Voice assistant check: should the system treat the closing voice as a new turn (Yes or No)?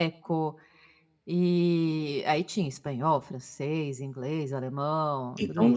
Yes